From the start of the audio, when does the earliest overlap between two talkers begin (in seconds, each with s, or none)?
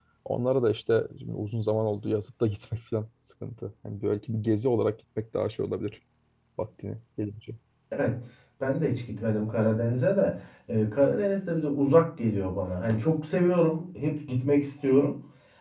none